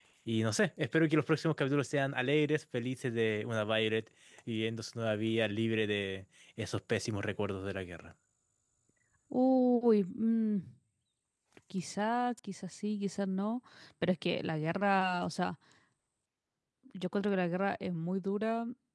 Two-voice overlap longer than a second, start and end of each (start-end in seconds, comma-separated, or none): none